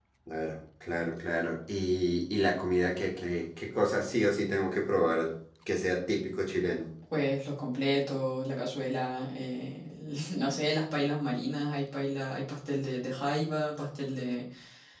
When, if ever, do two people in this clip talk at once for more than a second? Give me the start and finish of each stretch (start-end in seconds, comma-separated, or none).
none